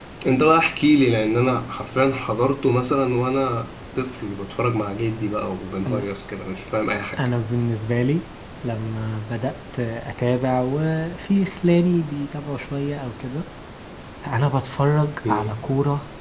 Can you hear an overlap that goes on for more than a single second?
No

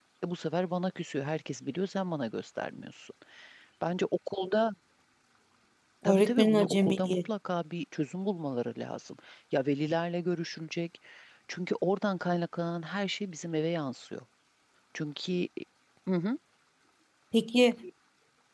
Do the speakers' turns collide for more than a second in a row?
Yes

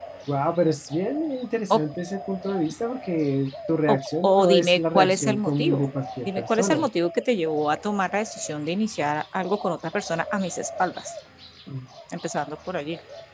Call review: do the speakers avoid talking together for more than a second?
No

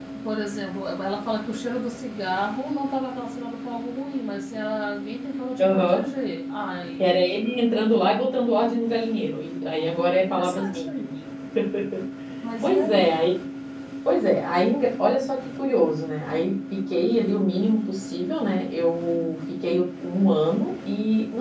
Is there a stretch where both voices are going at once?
Yes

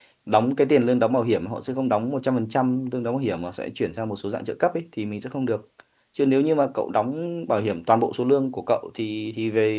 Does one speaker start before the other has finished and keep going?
No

